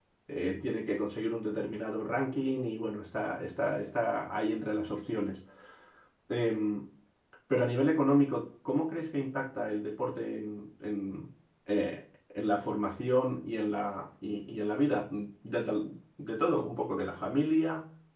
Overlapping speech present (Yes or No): No